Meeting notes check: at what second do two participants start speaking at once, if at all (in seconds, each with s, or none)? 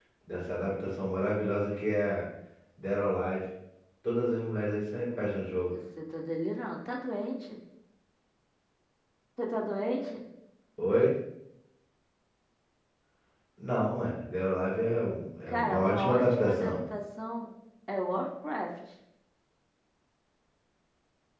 15.5 s